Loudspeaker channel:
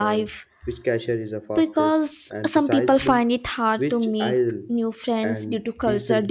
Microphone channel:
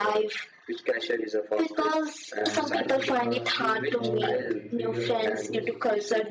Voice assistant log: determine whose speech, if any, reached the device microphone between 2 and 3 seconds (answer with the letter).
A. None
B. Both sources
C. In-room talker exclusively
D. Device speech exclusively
B